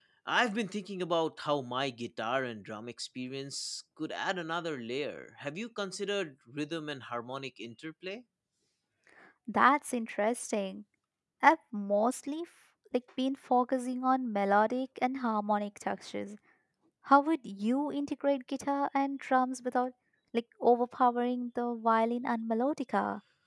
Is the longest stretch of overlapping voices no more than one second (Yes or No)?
Yes